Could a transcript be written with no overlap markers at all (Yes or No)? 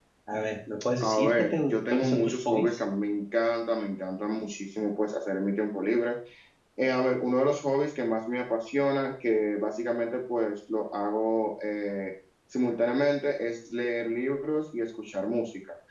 No